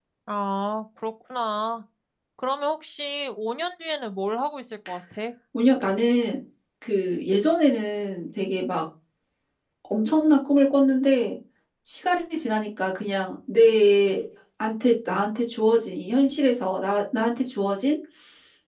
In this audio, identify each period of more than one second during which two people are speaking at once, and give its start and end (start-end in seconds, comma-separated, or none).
none